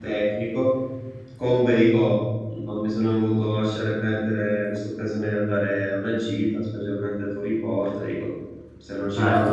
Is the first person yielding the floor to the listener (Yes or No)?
Yes